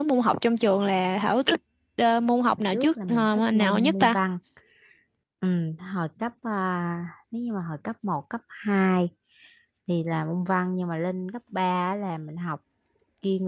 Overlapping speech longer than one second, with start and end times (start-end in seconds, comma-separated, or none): 2.7-4.2